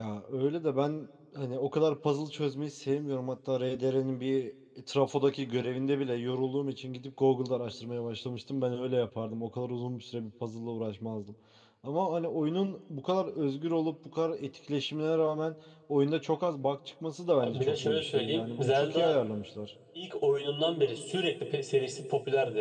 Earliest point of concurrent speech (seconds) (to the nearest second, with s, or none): 17 s